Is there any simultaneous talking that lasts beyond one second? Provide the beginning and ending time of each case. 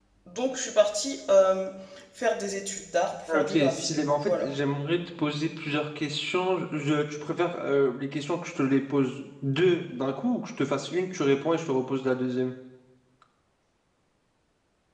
3.3-4.5

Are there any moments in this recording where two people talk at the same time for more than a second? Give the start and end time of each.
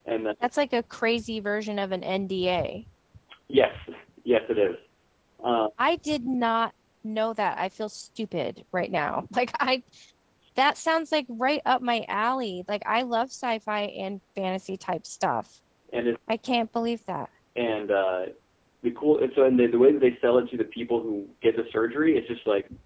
none

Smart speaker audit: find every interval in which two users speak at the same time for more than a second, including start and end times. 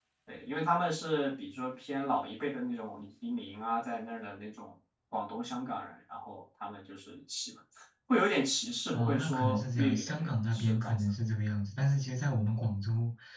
8.9-11.0

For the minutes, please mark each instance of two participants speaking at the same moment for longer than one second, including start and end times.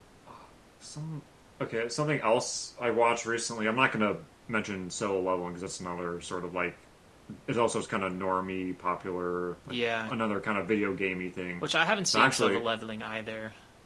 none

